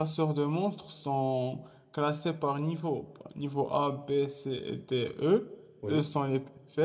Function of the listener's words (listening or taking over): listening